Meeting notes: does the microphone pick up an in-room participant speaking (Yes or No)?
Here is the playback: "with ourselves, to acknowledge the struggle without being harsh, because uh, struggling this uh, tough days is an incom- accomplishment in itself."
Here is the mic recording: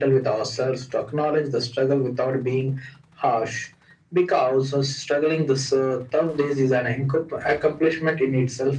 No